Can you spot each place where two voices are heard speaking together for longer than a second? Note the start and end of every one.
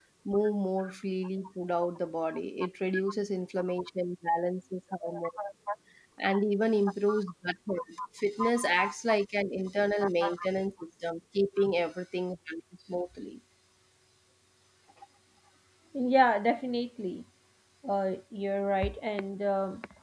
none

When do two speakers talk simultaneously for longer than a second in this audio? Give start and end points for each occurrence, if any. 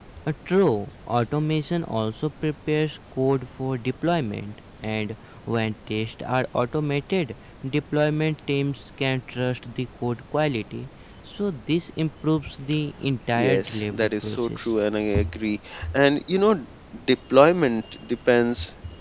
13.4-14.7

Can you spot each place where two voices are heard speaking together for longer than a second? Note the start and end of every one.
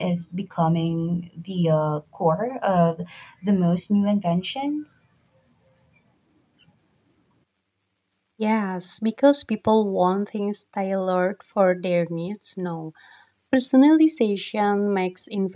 none

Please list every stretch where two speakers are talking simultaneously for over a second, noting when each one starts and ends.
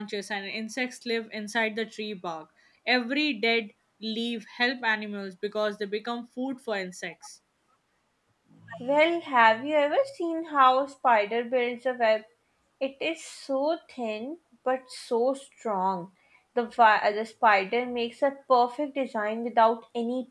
none

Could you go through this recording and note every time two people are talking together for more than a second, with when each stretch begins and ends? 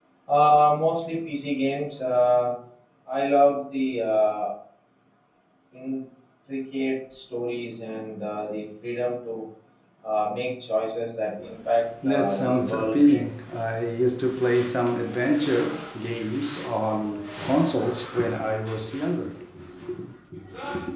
12.0-13.3

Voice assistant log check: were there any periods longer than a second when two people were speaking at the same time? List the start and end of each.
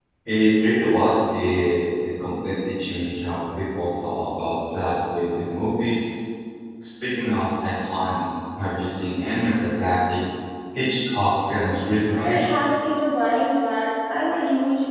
none

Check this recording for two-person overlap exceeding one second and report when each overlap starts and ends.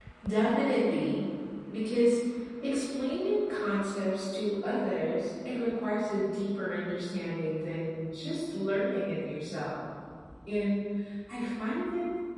none

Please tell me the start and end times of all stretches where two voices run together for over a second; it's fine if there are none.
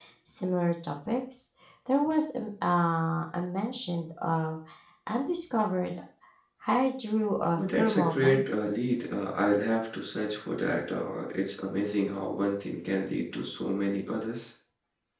7.6-8.9

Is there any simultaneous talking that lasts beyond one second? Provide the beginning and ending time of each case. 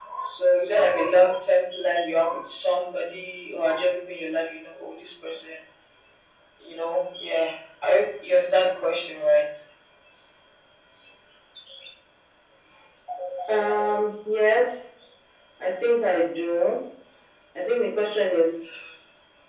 none

